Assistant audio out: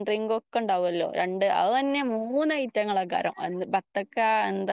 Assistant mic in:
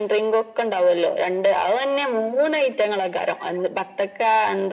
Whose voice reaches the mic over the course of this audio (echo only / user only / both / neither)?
echo only